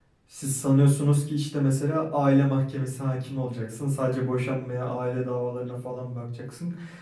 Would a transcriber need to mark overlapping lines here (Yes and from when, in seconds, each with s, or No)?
No